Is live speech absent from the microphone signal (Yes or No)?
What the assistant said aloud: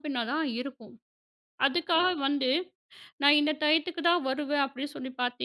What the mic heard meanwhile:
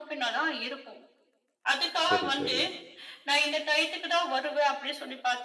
No